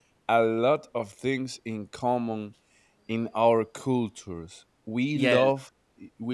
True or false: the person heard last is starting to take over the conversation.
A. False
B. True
A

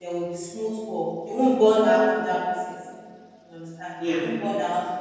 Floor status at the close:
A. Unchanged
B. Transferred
A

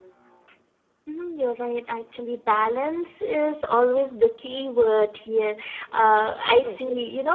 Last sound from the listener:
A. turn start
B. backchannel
B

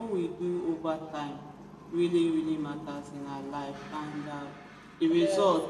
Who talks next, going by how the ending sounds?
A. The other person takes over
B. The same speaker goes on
B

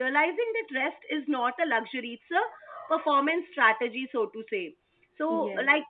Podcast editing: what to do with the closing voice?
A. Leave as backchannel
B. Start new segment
A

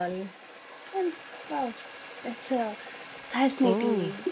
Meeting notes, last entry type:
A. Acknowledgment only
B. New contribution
B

